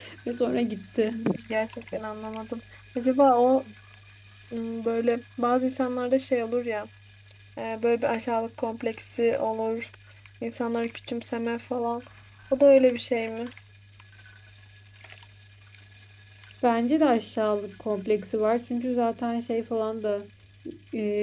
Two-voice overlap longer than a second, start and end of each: none

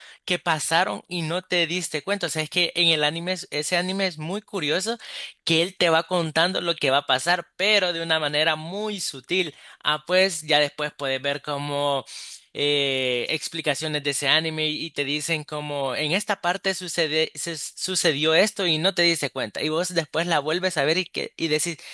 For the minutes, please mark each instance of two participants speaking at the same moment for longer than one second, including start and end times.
none

